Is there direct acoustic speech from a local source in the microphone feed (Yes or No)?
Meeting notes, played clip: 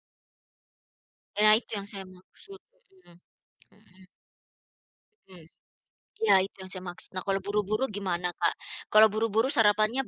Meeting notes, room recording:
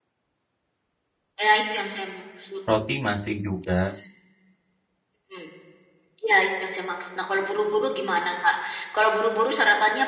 Yes